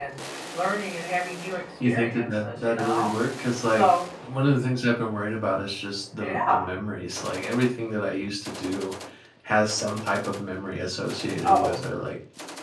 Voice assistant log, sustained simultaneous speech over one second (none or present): present